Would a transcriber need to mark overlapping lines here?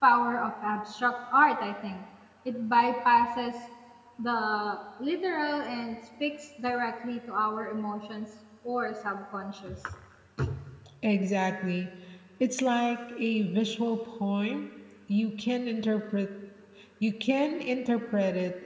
No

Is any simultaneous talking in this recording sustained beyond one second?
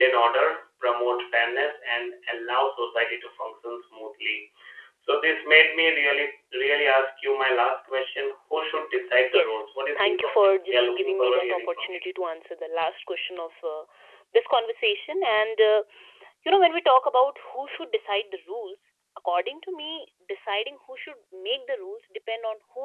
Yes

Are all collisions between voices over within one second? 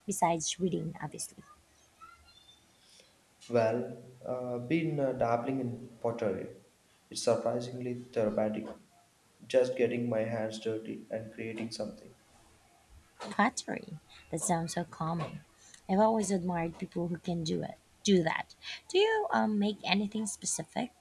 Yes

